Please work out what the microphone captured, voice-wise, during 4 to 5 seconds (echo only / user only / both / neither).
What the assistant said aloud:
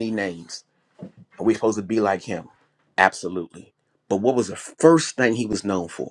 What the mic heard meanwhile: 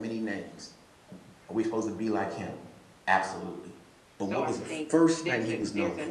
both